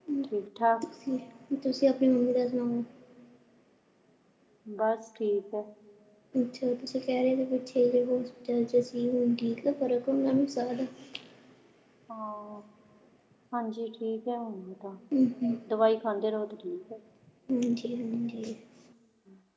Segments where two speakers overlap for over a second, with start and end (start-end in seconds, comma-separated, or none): none